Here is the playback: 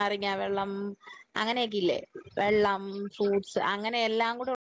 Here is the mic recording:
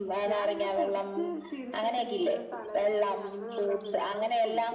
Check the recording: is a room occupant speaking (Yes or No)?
Yes